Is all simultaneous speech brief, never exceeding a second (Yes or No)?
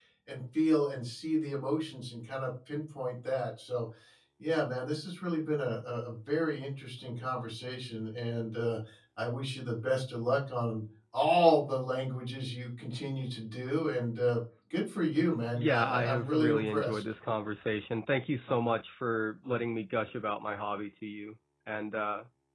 No